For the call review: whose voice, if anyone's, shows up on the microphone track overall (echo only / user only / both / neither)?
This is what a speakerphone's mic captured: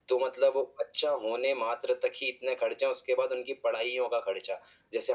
echo only